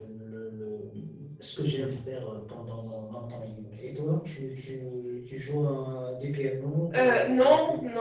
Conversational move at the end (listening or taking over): taking over